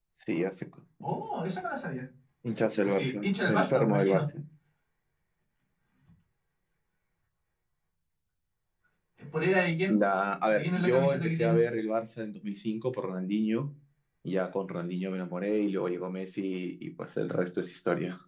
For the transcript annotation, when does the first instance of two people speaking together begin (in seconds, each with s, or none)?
2.8 s